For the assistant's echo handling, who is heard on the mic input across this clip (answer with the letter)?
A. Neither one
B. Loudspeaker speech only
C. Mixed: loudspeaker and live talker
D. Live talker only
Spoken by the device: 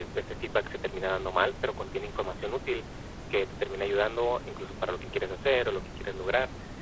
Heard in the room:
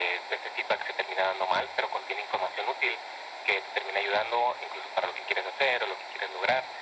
B